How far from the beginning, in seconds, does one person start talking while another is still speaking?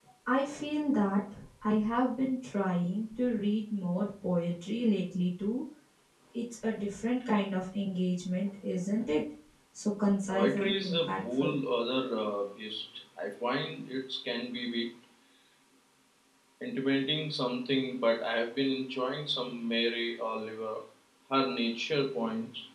10.3 s

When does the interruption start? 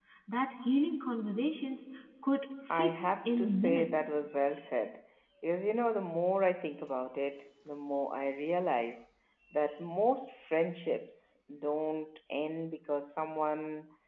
2.7 s

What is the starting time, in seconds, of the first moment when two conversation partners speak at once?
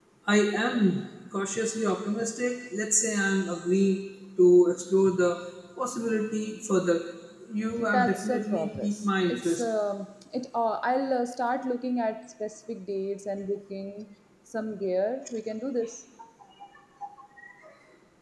7.8 s

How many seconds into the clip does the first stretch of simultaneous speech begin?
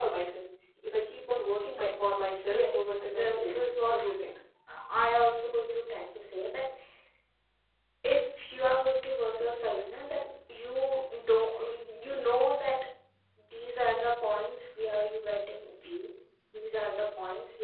2.5 s

